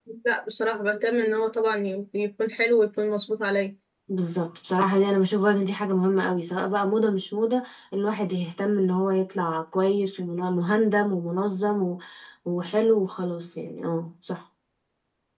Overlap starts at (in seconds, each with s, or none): none